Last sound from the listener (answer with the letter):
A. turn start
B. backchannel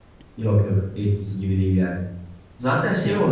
B